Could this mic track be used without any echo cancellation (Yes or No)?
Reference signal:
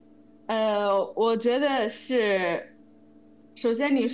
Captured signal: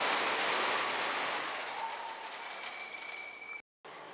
Yes